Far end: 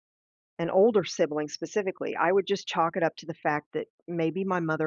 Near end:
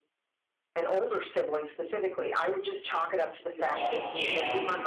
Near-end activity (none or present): present